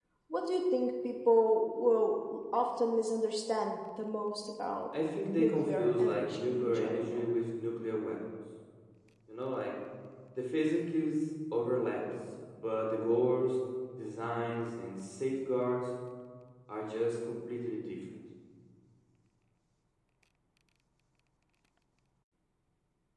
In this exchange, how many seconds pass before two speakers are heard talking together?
5.4 s

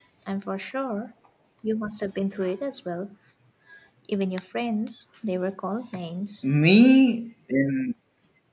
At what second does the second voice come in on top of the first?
none

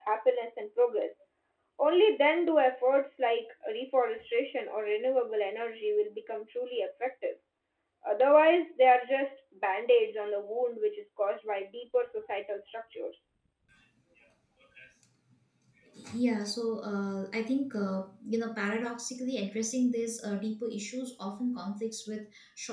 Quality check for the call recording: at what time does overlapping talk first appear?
none

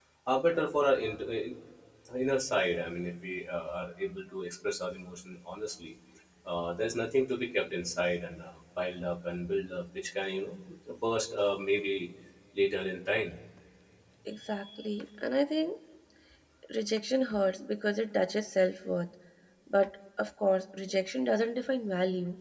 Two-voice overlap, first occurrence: none

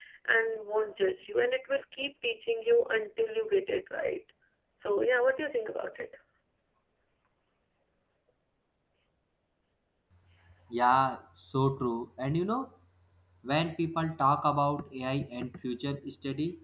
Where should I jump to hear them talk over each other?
none

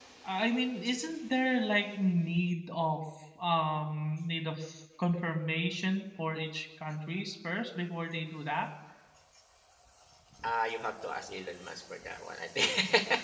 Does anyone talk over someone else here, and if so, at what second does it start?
none

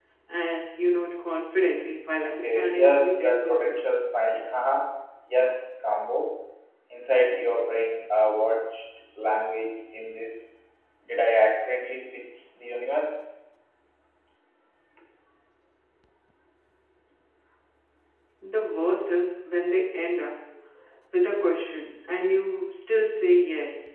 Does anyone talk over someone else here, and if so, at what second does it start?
2.2 s

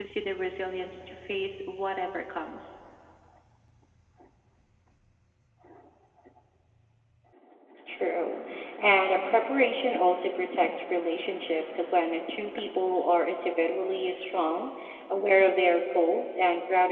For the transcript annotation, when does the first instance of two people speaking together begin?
none

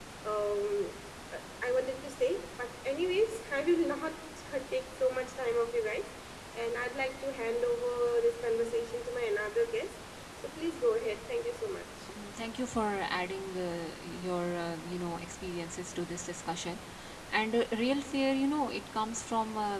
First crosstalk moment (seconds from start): none

